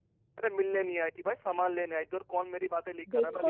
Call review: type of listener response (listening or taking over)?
taking over